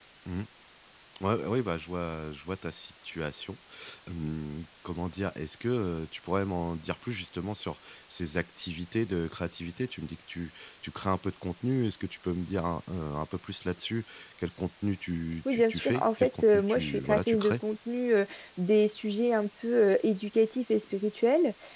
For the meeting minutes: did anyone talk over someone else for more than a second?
Yes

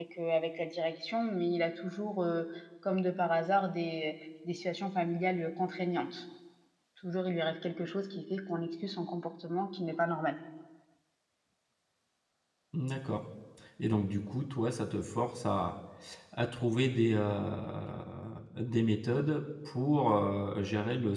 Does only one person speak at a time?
Yes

